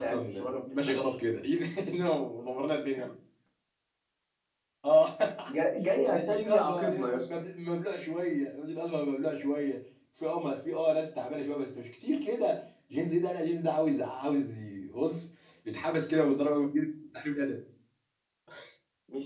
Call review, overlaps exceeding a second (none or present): present